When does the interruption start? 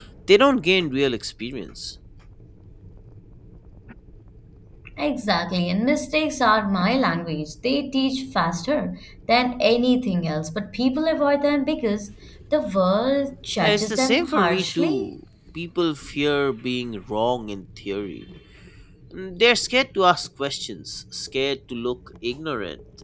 13.6 s

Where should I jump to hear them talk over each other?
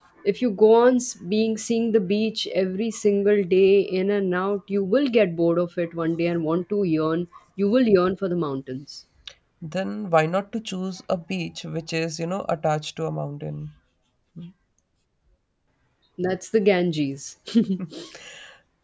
none

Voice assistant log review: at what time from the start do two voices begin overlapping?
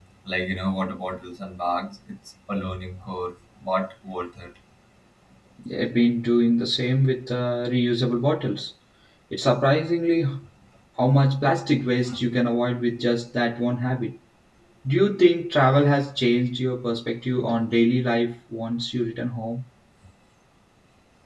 none

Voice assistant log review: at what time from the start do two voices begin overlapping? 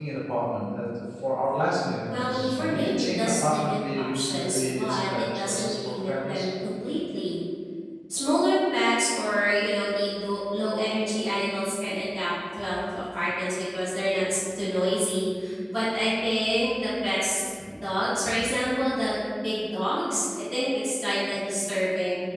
2.1 s

